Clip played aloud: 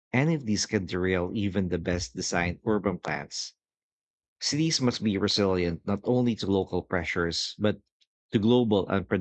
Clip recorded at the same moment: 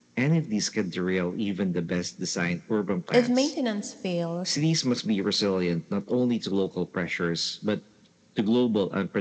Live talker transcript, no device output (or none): If maintenance fails,